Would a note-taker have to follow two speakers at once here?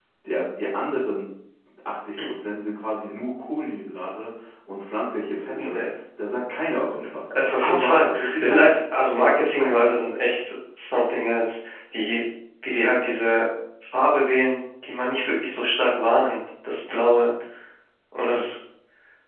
Yes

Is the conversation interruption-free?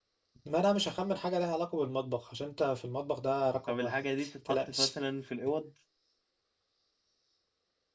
No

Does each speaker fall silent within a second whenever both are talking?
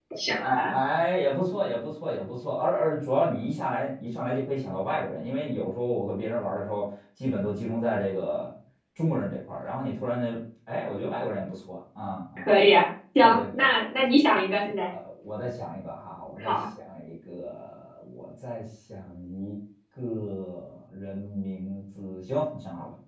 Yes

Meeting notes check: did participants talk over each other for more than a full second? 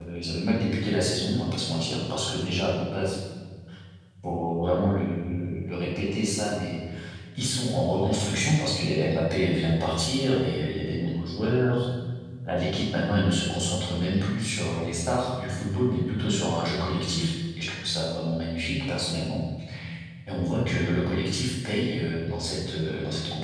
No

